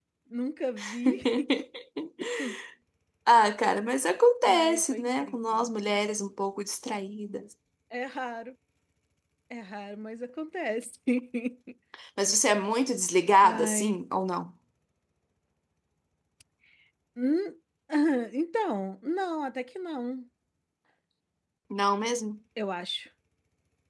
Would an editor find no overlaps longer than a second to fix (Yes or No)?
No